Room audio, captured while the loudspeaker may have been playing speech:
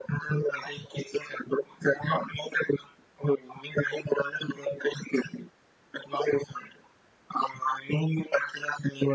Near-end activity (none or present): none